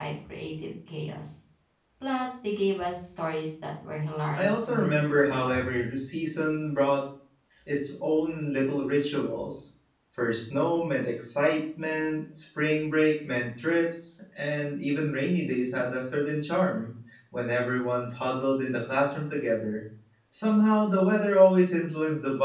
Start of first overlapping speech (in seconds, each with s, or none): 4.4 s